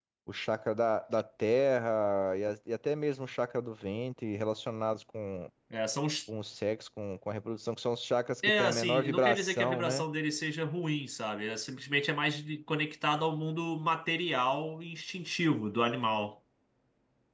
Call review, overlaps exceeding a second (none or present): present